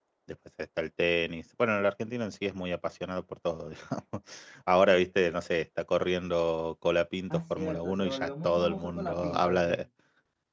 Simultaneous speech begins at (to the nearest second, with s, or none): 7 s